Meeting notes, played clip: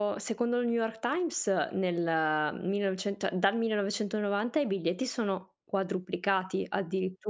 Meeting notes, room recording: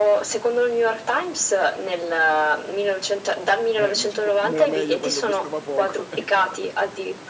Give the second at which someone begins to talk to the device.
3.8 s

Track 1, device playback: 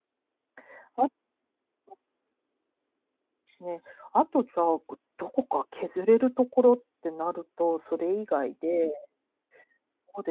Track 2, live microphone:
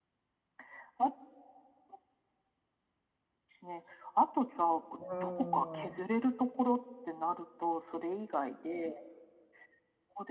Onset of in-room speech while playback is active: 5.0 s

